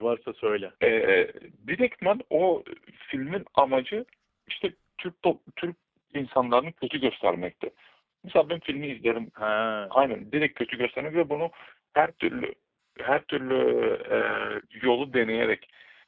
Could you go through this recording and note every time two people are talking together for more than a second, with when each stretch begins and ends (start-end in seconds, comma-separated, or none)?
none